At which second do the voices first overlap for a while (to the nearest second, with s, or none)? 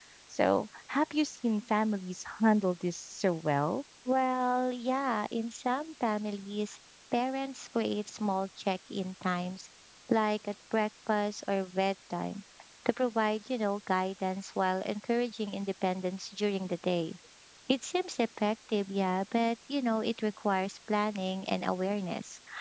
none